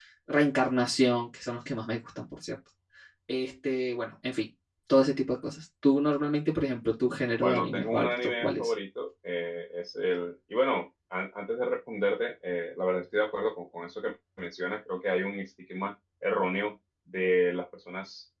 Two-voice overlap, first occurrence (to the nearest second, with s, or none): 7 s